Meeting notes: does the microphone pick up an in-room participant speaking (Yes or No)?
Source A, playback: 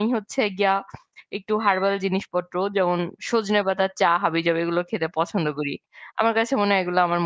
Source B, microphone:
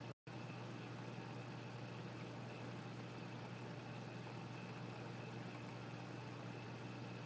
No